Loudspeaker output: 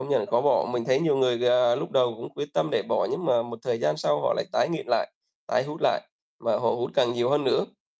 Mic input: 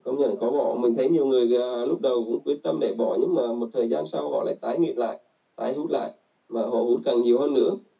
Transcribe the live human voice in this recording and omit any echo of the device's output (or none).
none